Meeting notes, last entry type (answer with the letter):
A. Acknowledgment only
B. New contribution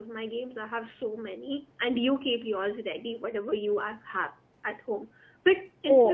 A